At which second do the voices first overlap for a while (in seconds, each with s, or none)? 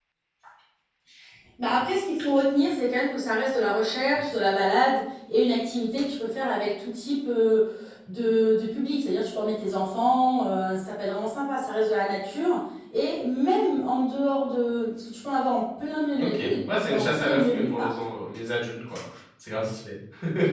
16.2 s